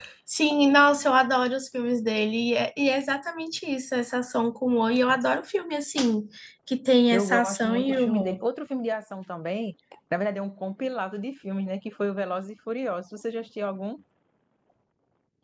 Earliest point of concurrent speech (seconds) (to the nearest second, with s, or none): 7 s